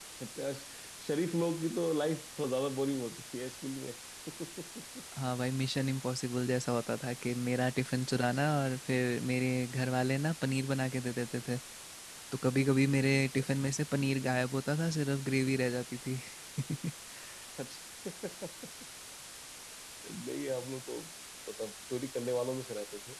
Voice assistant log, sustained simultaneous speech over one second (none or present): none